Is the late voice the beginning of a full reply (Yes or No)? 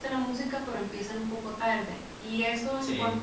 No